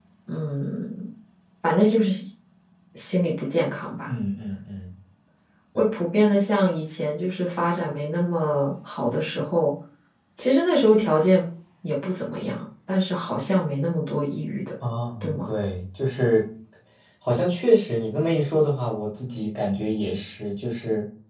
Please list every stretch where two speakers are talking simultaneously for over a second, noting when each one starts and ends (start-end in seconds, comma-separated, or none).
none